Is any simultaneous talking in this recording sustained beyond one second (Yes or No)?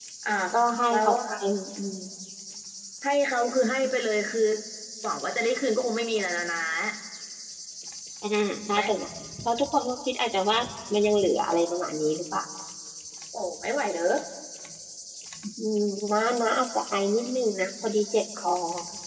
No